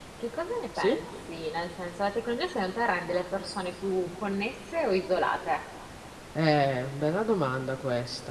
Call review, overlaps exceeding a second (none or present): none